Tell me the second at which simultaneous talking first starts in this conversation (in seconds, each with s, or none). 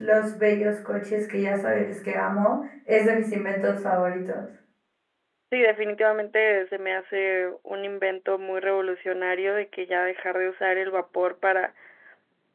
none